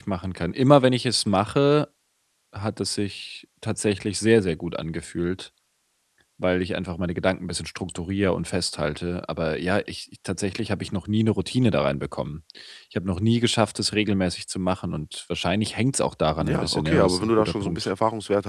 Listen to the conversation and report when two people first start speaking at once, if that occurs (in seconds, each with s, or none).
16.4 s